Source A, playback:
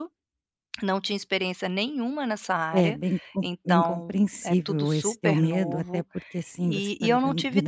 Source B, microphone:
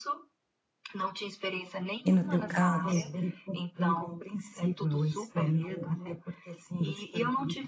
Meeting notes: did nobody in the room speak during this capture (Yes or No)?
No